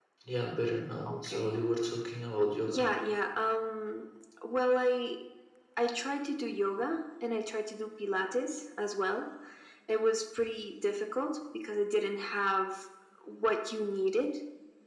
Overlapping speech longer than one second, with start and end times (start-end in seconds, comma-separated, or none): none